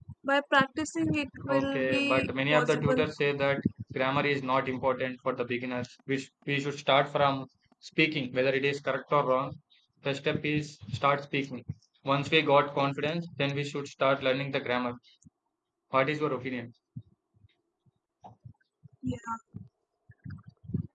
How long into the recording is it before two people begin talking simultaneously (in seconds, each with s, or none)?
1.5 s